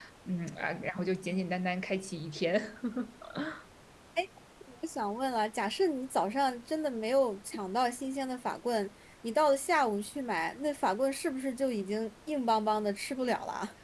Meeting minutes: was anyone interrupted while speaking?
No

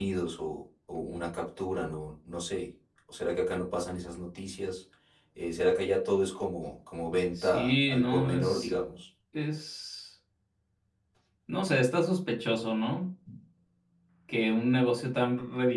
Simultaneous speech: Yes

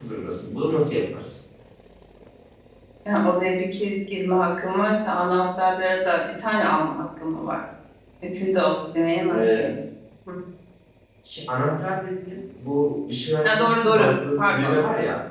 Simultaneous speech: Yes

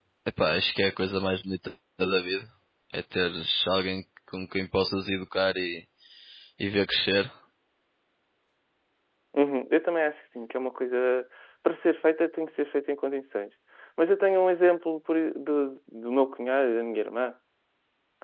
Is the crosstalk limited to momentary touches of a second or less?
Yes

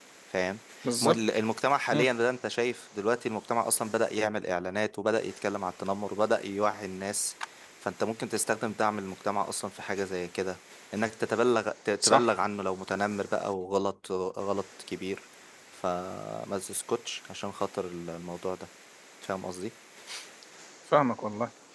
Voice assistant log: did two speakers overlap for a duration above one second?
No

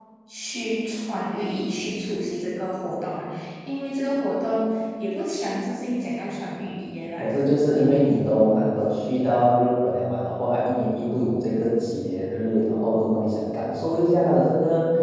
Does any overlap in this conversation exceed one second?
No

